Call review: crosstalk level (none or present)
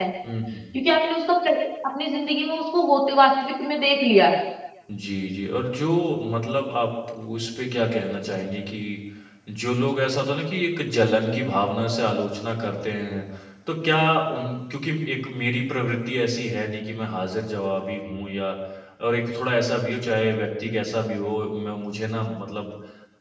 none